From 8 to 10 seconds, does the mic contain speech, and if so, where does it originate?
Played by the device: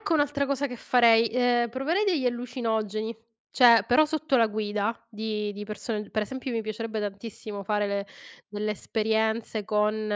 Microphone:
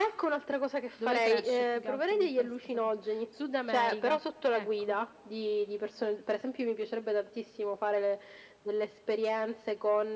echo only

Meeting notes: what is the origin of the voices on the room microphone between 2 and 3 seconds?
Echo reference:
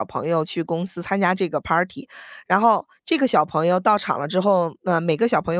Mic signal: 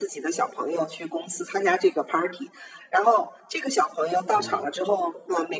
echo only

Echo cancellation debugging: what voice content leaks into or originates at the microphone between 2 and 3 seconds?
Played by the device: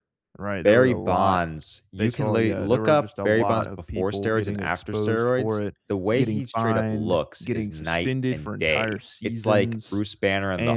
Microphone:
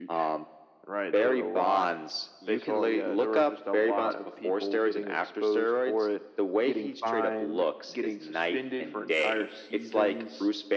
echo only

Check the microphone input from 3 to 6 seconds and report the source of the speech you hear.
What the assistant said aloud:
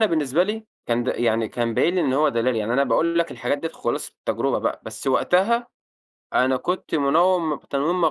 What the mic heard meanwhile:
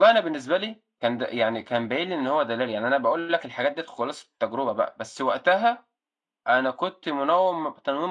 echo only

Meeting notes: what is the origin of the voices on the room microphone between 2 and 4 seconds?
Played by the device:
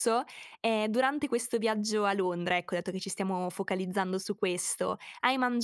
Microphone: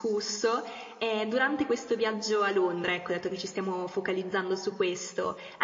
echo only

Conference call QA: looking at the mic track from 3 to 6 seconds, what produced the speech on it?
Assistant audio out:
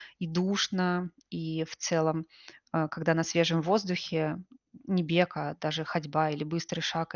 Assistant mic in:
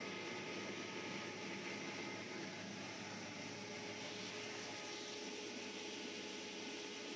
neither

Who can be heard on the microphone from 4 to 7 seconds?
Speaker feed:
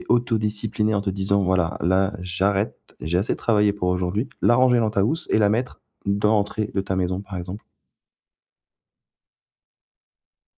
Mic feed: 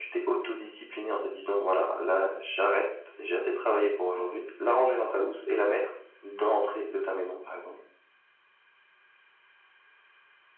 echo only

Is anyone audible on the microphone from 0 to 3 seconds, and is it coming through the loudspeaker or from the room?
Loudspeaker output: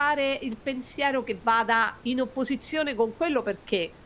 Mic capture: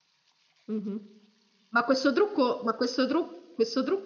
user only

